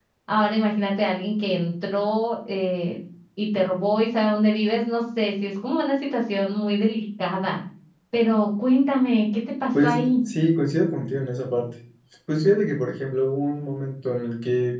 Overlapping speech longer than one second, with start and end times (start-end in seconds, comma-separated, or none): none